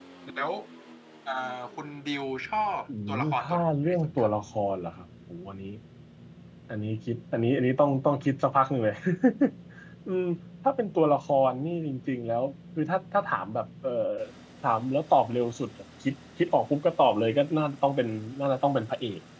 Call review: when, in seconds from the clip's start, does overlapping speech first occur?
2.9 s

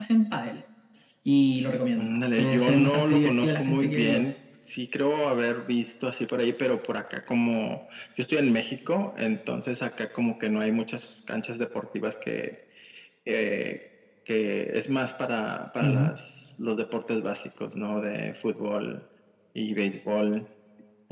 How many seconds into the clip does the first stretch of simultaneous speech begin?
2.0 s

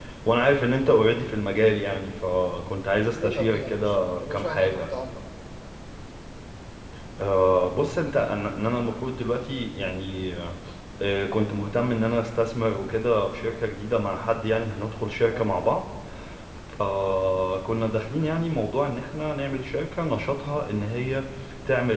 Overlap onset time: 3.1 s

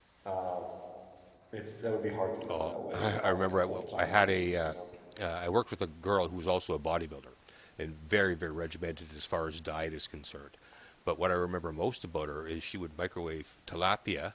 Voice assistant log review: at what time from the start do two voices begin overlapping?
2.4 s

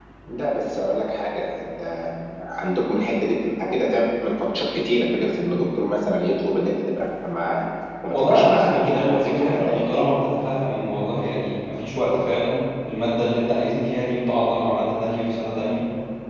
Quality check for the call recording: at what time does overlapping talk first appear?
8.1 s

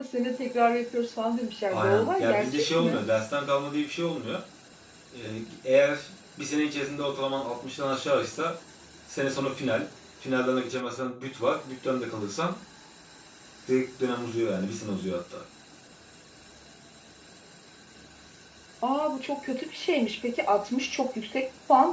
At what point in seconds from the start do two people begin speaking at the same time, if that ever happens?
1.7 s

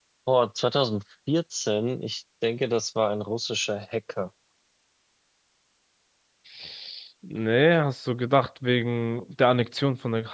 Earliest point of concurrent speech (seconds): none

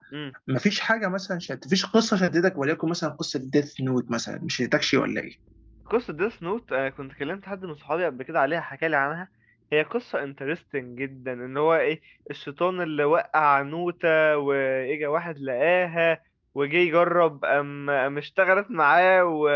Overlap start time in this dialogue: none

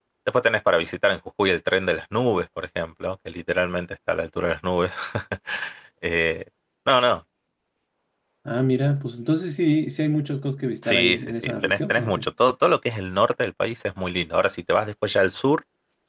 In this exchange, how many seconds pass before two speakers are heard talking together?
10.8 s

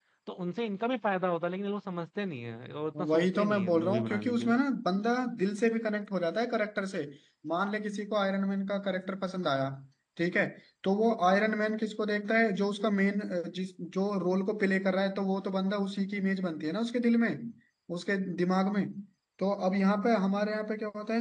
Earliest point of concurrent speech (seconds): 3.0 s

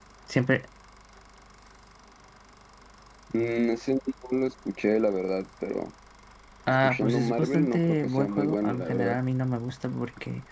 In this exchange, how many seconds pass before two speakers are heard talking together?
6.7 s

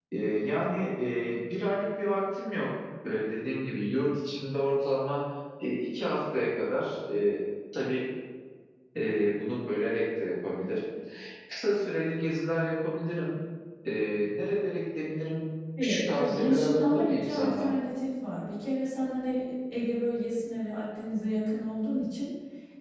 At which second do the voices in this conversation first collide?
15.8 s

